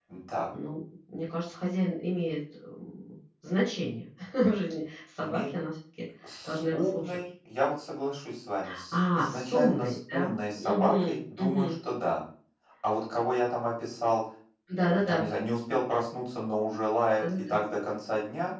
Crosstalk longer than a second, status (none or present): present